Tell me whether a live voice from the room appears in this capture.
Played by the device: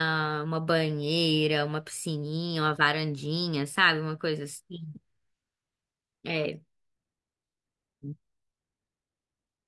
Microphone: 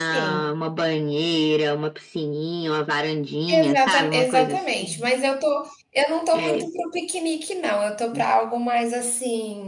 Yes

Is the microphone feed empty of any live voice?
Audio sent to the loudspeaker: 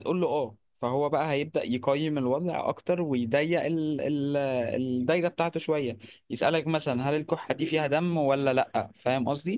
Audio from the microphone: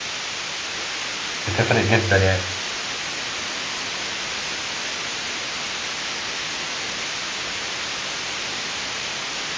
No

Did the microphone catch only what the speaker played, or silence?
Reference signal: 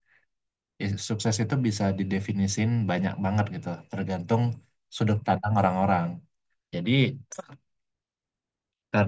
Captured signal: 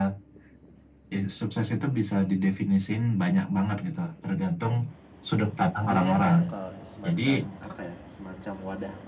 No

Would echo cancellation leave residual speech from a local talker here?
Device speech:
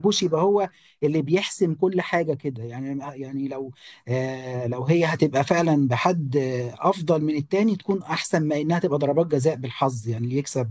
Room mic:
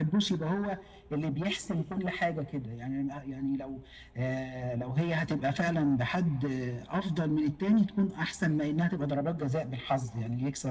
No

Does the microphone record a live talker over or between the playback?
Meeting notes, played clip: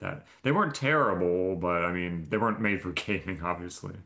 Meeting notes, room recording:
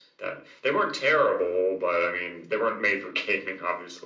No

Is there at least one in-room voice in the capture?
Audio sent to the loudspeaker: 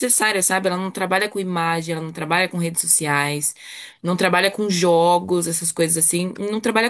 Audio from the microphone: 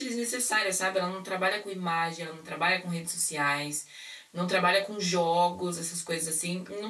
No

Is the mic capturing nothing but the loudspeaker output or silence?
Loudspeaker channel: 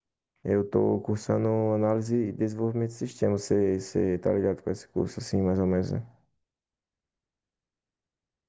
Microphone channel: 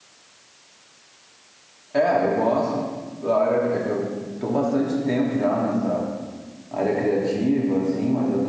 No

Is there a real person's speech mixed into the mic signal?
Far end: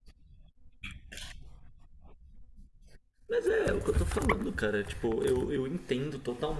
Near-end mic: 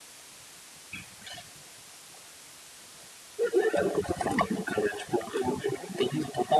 No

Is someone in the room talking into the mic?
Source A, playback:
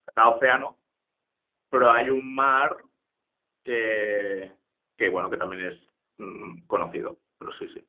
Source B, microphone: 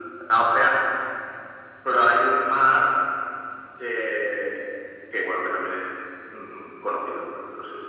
No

